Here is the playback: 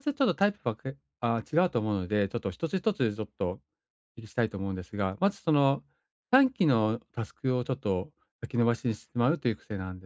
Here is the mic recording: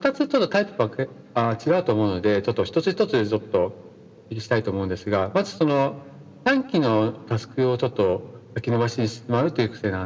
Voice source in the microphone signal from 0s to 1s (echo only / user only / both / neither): echo only